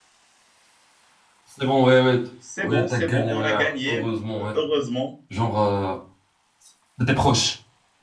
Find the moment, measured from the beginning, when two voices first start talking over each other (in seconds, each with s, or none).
2.4 s